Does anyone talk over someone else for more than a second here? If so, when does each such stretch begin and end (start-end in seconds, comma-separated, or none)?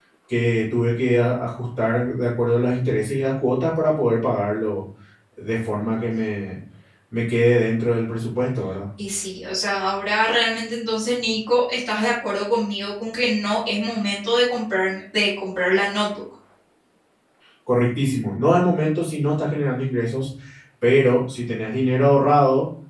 none